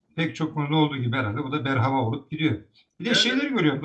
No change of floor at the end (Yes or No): Yes